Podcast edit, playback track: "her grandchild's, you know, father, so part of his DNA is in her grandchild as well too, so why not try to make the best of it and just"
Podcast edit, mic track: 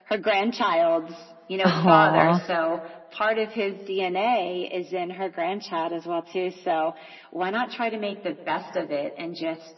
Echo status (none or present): present